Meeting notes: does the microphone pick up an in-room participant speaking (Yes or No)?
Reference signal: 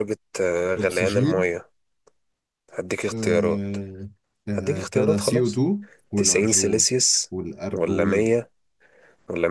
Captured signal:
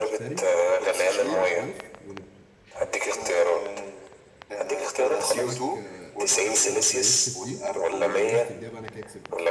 Yes